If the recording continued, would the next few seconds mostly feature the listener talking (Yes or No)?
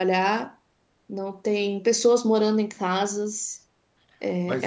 Yes